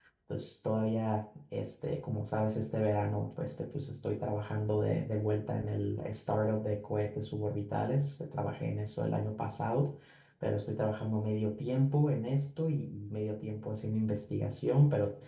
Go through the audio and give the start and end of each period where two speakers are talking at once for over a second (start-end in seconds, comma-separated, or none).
none